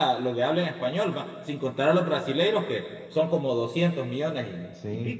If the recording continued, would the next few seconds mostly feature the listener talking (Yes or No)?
Yes